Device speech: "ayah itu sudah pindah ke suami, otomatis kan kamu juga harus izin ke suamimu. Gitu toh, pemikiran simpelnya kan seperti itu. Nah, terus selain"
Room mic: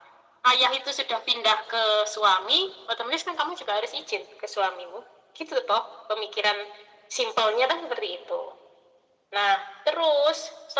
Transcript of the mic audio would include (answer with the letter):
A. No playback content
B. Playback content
B